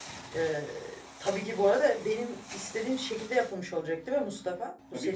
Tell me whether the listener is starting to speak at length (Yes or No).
Yes